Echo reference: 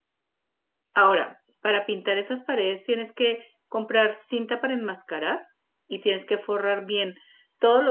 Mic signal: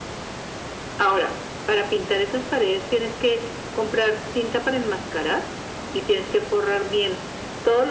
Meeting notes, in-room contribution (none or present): none